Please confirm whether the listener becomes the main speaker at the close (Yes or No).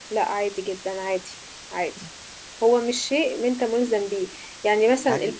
No